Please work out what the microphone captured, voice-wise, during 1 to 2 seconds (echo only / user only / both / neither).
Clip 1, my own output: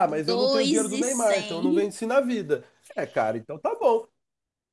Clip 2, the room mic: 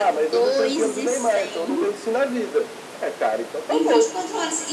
echo only